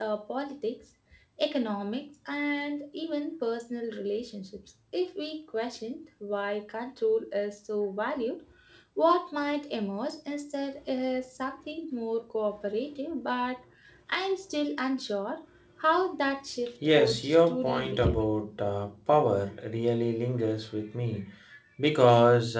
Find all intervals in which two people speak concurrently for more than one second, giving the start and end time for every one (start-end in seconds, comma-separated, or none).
17.0-18.2